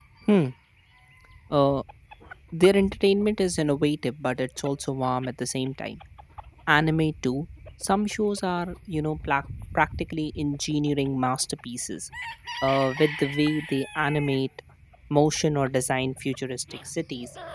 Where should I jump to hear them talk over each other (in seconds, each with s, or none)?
none